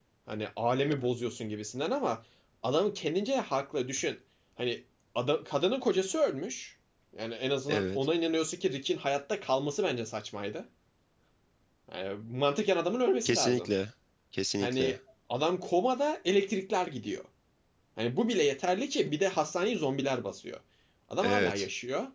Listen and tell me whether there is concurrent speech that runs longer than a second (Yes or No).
No